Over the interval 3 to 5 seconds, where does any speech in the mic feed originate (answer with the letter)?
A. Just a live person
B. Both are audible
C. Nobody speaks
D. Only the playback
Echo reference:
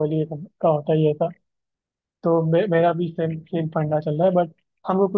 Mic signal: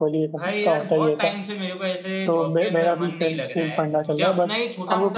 B